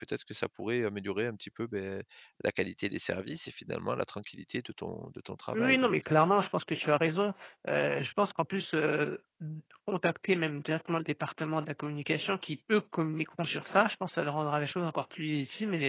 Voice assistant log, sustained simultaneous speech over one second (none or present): none